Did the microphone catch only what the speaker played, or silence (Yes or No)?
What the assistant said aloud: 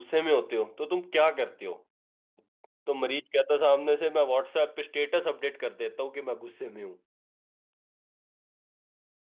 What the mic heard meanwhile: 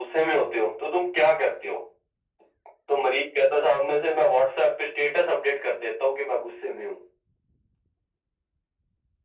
Yes